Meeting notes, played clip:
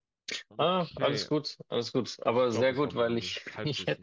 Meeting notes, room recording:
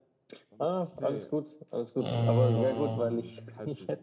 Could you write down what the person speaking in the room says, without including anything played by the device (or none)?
Mm,